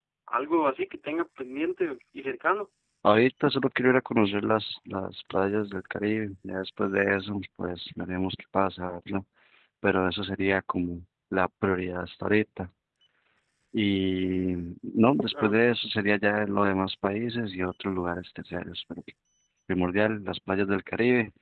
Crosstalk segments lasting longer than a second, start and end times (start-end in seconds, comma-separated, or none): none